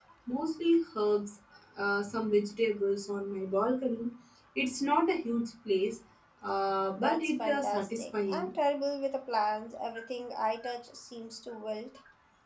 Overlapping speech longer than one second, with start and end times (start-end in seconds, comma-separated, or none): 7.0-8.5